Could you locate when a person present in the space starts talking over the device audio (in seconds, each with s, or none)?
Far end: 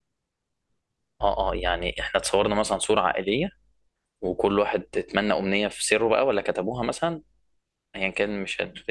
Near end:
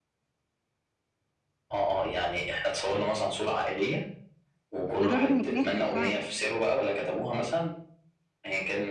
5.0 s